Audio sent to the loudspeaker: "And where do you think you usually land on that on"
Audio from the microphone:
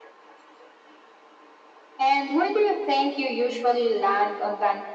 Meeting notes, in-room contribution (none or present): none